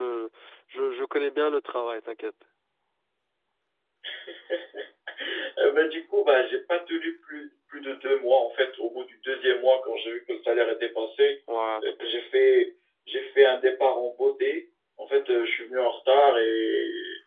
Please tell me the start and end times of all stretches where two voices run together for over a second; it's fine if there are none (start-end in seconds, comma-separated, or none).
none